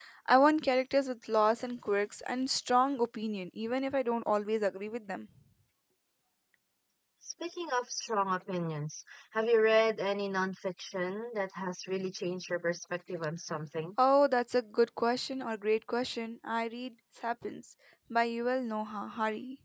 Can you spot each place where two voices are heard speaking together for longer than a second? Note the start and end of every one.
none

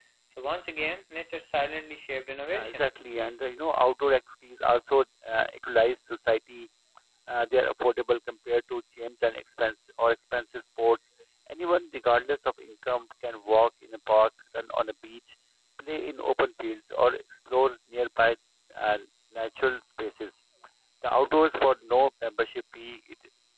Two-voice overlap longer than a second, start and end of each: none

